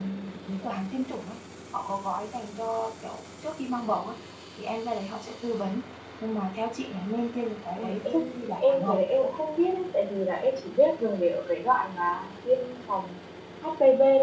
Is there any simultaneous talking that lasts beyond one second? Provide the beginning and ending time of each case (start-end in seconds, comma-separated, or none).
7.8-9.0